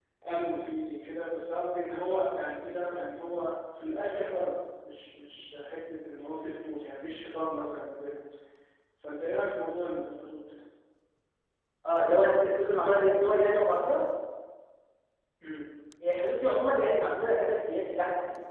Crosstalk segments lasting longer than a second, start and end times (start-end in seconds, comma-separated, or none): none